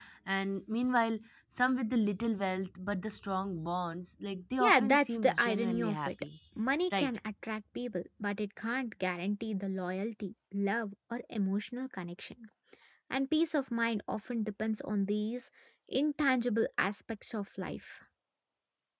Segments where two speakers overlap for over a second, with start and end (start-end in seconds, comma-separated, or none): 4.6-6.1